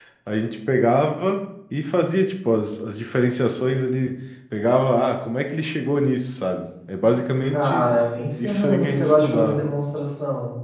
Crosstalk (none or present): present